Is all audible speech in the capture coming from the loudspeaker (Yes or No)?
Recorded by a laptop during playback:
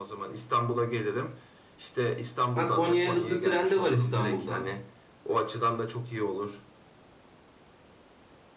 No